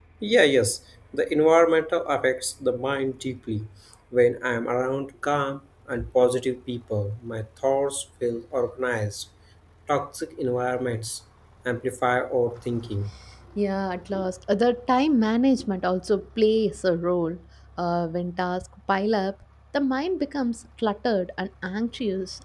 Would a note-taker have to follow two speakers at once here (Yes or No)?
No